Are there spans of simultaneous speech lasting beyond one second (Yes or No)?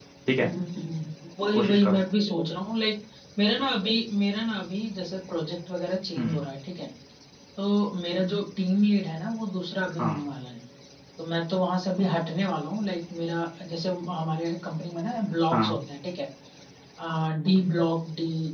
No